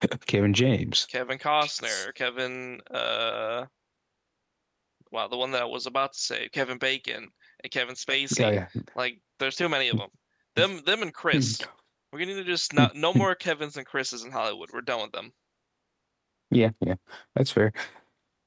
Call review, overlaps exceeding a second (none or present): none